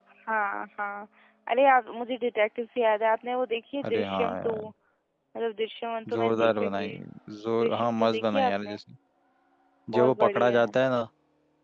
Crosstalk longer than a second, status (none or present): present